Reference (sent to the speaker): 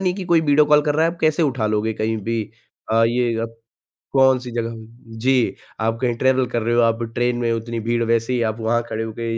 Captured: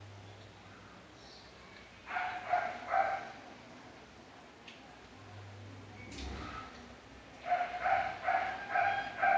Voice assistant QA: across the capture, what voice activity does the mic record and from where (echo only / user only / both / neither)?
neither